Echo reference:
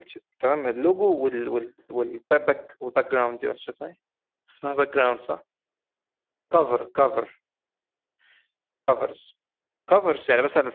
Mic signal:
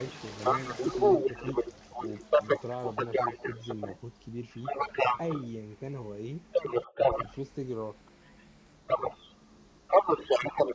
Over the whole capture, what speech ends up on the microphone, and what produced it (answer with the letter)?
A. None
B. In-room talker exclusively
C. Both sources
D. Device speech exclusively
C